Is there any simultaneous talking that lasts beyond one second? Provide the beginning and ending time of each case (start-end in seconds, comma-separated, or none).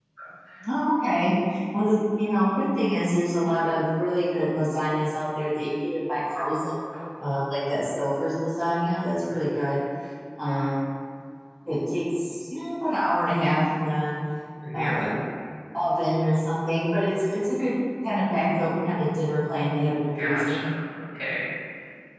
none